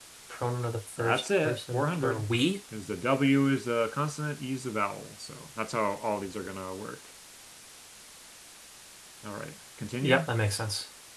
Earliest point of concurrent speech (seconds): 1 s

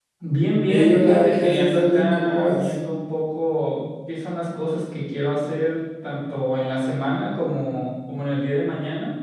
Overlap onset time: 1 s

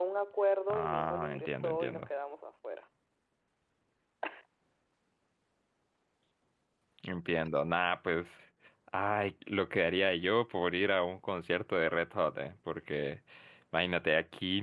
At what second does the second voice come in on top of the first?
1 s

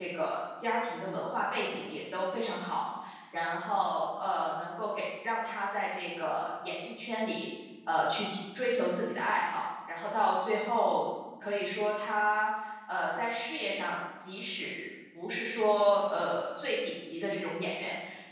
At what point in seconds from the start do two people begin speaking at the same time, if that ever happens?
none

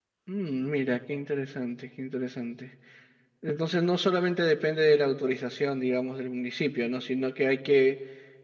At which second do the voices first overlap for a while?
none

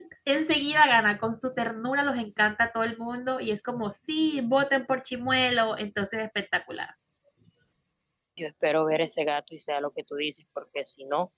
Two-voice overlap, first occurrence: none

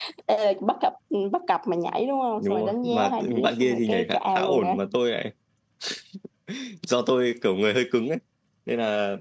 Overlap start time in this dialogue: 2 s

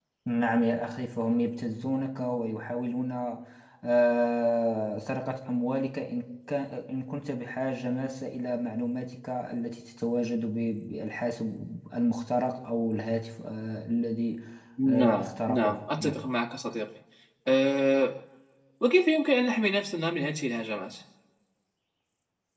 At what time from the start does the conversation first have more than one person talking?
15 s

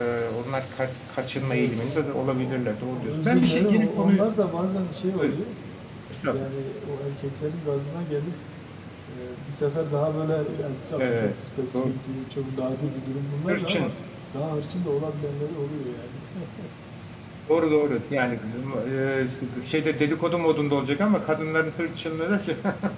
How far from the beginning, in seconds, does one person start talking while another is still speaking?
1 s

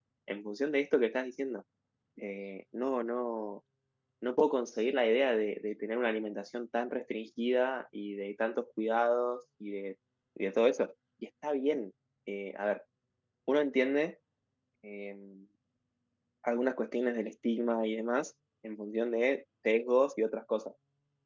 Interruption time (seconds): none

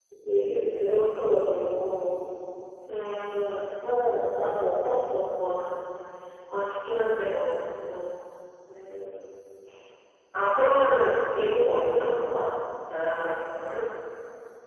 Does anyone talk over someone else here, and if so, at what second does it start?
none

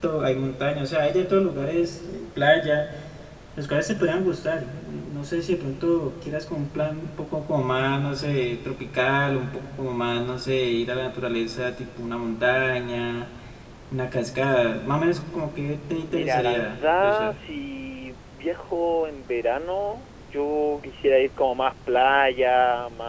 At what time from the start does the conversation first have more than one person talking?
16 s

